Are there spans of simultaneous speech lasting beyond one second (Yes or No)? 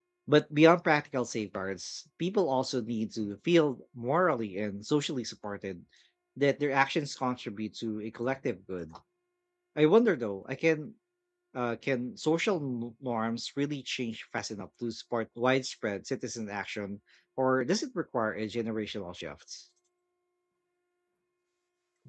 No